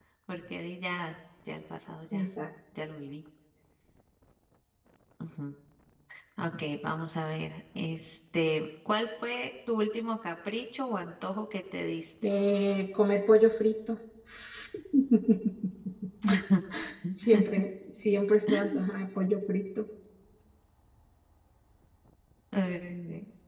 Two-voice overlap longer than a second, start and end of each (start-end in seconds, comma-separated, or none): none